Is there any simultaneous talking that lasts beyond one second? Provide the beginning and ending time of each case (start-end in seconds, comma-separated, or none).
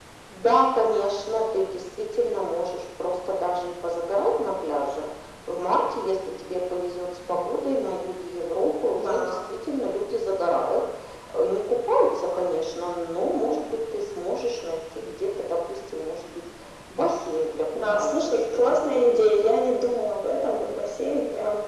17.9-19.6